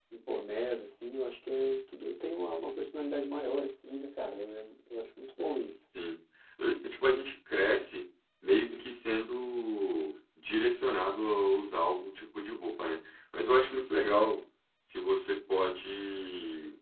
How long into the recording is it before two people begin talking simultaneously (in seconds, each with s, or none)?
none